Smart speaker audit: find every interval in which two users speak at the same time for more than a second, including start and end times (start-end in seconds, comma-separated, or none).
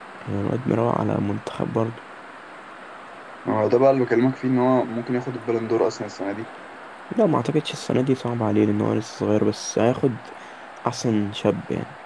none